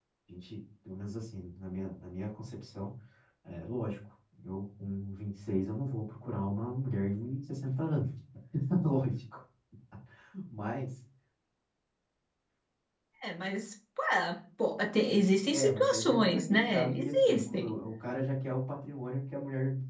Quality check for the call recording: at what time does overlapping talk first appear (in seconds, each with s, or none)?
15.5 s